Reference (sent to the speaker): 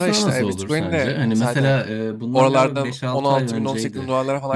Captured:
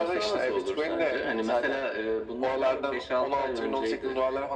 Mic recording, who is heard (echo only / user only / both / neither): echo only